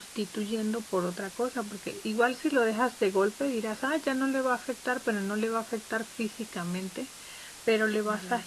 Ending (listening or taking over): listening